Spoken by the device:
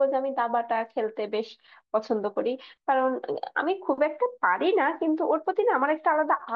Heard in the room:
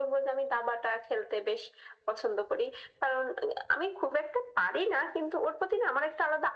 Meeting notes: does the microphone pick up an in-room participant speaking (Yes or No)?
No